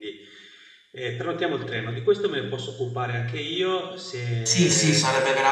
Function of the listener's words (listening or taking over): taking over